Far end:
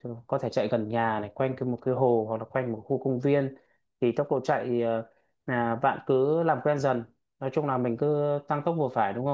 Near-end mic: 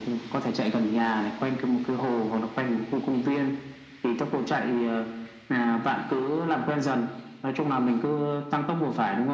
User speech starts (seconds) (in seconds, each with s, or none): none